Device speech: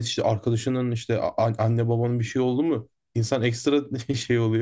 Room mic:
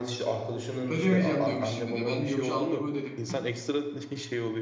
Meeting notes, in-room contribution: present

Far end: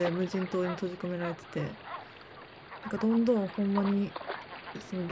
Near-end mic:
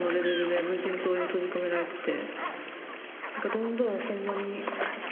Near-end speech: none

